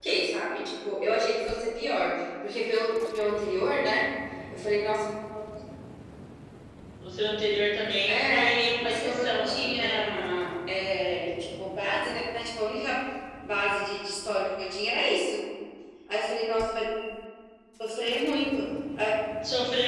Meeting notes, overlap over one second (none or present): present